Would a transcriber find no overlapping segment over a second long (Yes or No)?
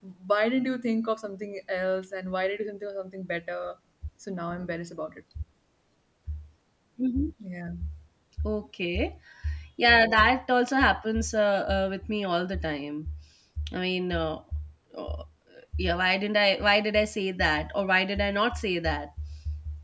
Yes